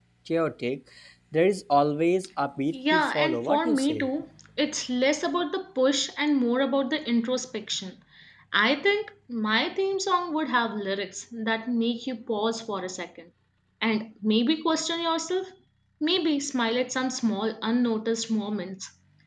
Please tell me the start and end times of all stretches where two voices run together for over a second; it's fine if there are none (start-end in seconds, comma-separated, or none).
2.7-4.1